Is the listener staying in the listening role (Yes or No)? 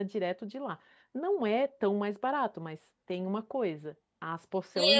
No